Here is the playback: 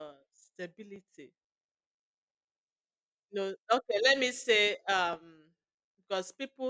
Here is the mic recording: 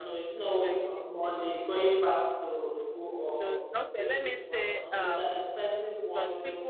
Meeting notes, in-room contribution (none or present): present